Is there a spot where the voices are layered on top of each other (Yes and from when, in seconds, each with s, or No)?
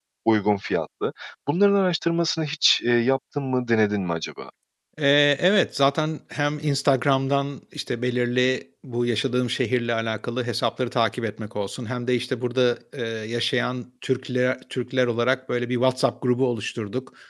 No